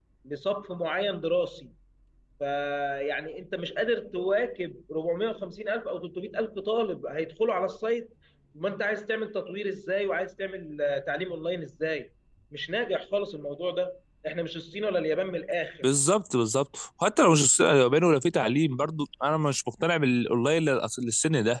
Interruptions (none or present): none